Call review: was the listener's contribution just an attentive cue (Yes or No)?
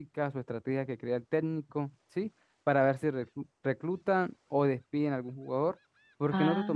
Yes